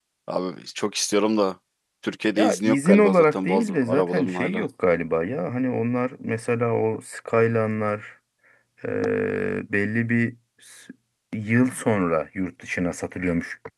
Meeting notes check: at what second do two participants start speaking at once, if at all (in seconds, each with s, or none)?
2.4 s